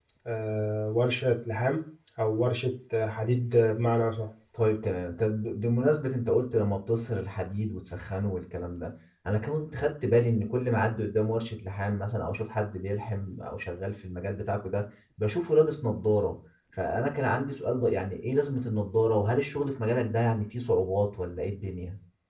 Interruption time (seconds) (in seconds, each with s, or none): none